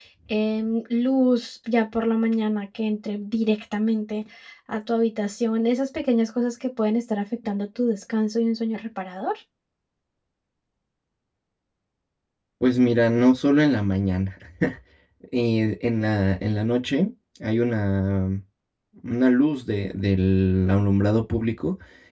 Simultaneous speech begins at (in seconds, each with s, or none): none